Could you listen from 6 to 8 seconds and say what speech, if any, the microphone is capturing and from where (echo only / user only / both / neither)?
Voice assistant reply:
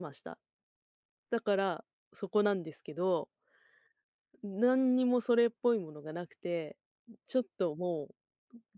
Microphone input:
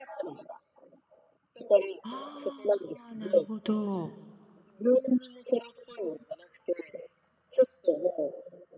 echo only